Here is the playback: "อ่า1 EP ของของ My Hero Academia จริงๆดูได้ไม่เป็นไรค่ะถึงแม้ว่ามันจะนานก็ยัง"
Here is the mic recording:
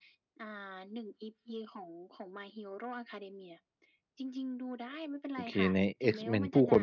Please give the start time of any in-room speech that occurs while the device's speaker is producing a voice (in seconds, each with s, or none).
5.3 s